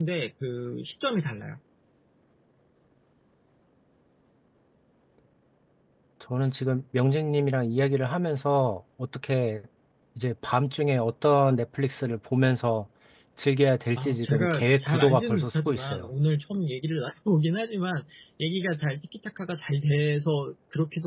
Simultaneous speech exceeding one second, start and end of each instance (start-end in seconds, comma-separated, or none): 14.0-16.1